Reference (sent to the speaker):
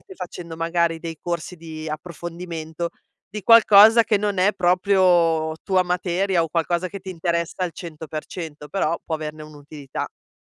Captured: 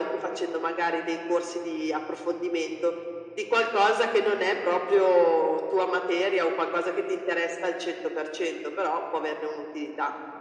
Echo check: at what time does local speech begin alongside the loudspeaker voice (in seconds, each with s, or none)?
none